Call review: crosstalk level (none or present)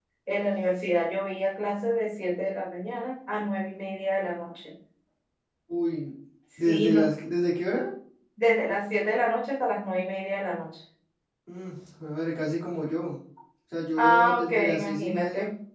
present